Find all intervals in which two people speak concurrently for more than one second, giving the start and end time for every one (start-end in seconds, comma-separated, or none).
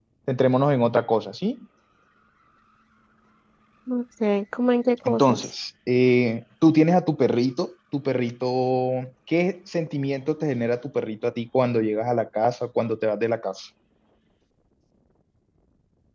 none